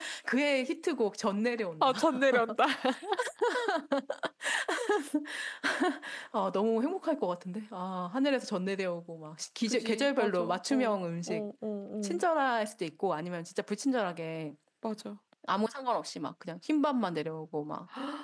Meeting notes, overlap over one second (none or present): present